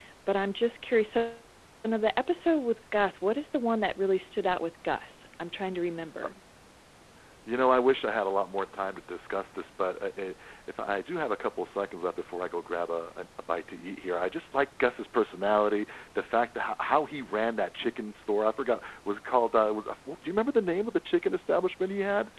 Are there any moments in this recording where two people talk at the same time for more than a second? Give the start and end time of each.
none

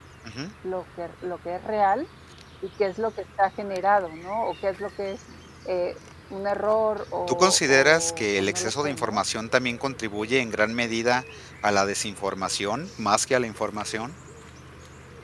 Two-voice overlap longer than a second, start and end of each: 7.3-9.2

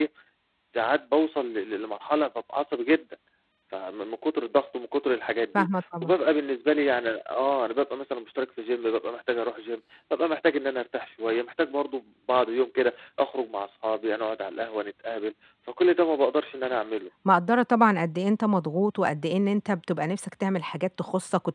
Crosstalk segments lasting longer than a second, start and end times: none

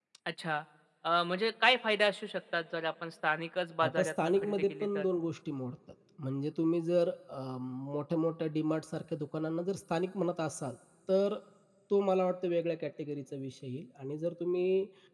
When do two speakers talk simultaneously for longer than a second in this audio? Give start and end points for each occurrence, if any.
3.8-5.0

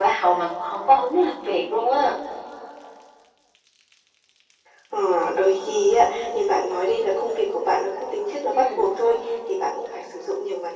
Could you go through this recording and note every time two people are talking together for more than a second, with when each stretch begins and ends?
none

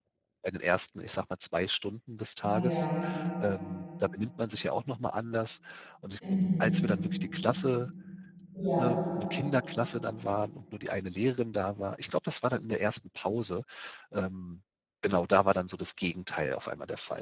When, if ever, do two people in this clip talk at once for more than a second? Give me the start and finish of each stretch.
none

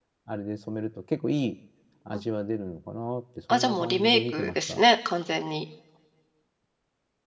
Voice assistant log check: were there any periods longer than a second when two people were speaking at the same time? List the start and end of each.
3.5-4.8

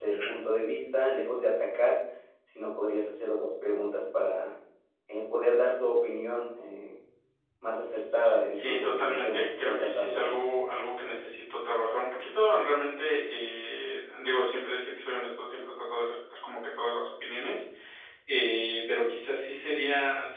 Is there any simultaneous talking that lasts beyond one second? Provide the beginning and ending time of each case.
8.5-10.4

